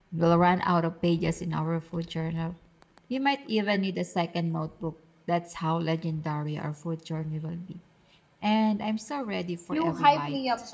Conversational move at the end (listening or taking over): taking over